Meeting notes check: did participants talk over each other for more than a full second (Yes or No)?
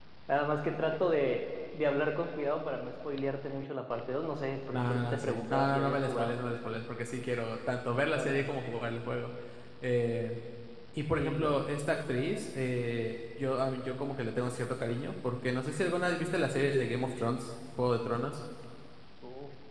Yes